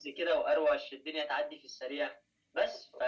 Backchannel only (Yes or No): Yes